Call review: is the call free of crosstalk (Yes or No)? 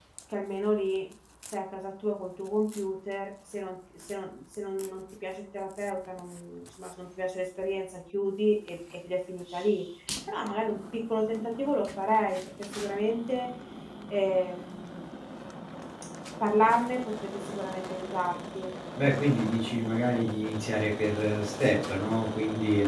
Yes